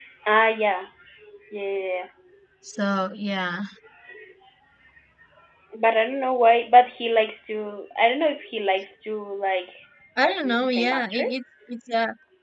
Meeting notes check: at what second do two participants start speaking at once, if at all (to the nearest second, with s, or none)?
10 s